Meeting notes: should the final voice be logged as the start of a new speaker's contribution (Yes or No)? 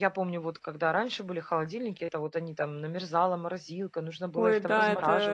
Yes